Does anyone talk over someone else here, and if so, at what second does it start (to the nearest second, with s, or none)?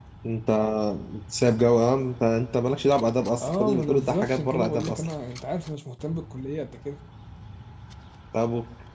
3 s